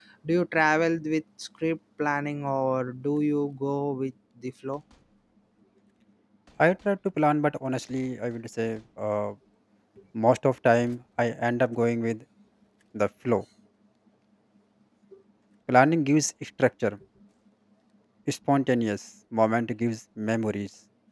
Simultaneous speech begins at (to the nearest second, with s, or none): none